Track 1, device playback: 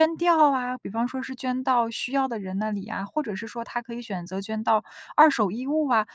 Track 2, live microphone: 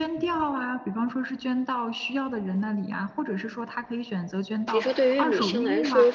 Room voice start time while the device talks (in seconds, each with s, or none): 4.7 s